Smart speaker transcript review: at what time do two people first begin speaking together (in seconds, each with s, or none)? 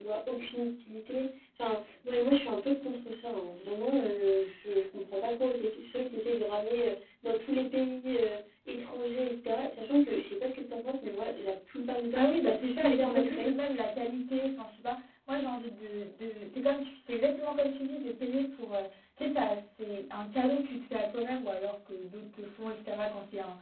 12.1 s